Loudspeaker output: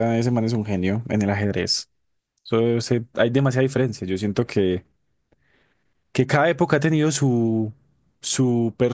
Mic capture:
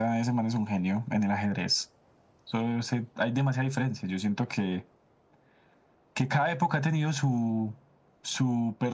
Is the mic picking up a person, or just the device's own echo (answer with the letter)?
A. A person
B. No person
B